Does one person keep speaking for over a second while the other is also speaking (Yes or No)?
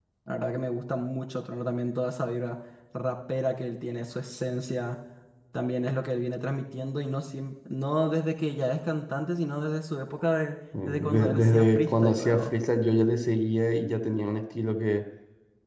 Yes